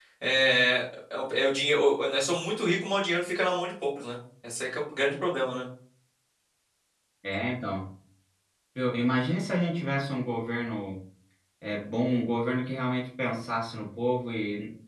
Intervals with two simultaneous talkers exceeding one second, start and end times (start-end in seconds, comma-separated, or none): none